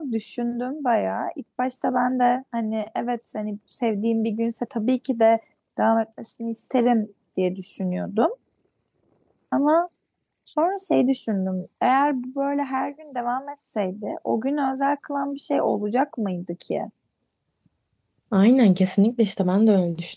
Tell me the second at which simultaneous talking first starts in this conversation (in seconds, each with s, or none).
none